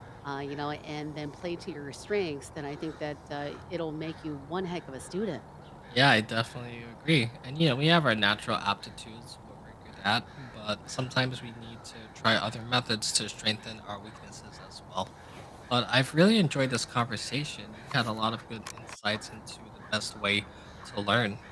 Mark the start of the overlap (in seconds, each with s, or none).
none